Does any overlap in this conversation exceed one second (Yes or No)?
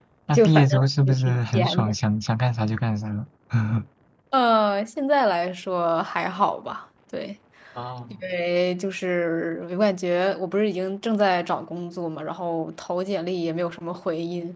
Yes